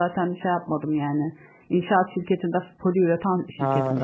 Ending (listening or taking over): taking over